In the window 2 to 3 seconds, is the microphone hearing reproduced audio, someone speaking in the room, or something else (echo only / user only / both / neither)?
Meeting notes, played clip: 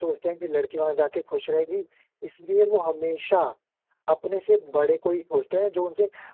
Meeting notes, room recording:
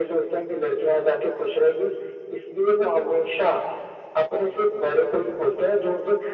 echo only